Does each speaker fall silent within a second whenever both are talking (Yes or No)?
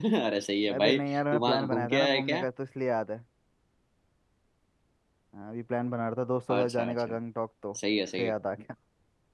No